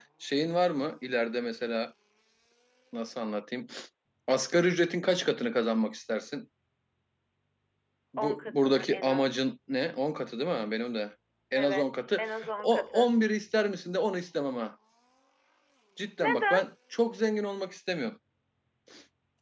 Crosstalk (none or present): present